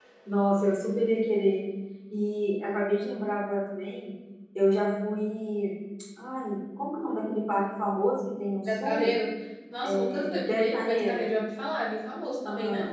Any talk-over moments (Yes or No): Yes